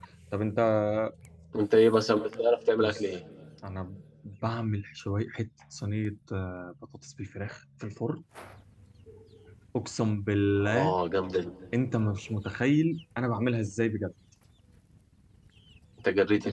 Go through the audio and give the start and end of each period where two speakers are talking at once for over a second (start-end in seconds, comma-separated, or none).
none